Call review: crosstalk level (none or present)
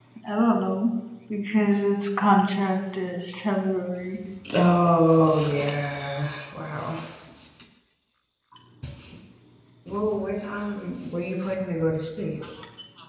none